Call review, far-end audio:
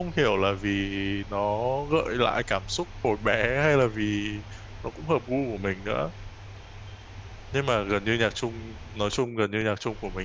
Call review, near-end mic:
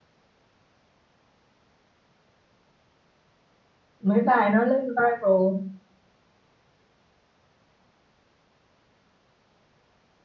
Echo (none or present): none